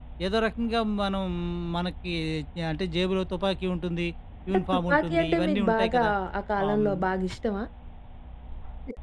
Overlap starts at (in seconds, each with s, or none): 4.5 s